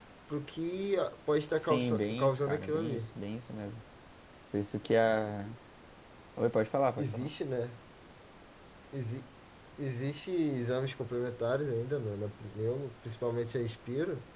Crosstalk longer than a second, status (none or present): present